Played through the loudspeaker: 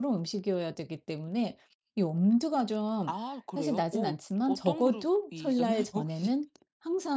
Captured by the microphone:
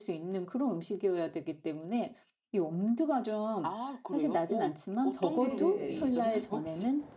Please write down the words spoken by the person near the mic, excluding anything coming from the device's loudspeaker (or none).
네네. 이